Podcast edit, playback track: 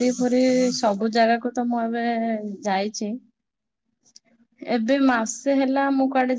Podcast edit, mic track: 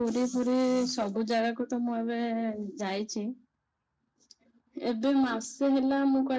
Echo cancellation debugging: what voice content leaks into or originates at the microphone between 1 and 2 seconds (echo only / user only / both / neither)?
echo only